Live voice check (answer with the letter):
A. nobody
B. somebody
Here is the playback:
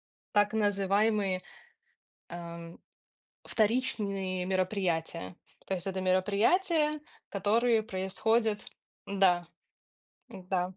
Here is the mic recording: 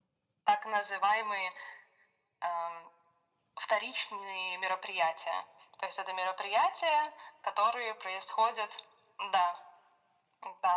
A